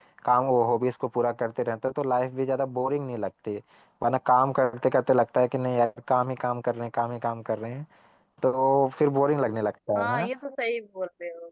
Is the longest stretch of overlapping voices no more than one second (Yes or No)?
Yes